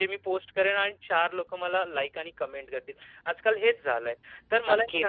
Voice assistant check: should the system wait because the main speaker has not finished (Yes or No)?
Yes